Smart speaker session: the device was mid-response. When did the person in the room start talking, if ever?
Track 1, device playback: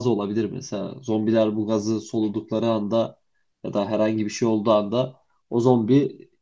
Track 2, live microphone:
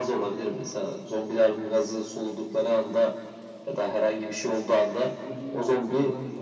5.2 s

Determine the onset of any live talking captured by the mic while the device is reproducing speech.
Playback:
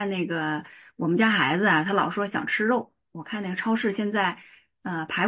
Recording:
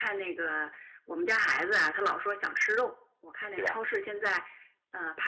3.5 s

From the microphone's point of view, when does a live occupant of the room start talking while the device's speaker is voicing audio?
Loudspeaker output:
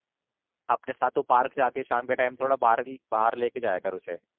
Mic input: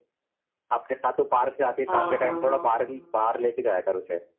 1.9 s

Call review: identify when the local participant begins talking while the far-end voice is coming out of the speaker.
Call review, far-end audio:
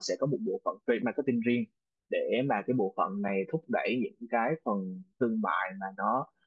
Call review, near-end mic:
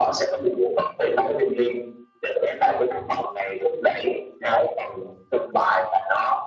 none

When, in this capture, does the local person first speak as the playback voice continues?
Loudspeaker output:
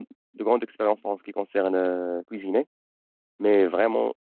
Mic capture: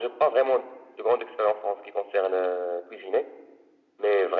none

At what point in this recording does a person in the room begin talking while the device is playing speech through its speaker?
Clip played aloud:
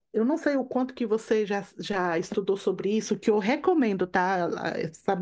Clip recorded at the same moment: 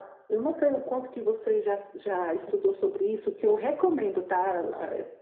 none

